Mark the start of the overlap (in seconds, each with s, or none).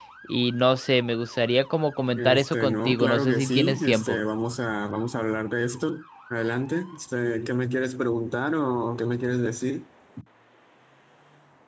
2.2 s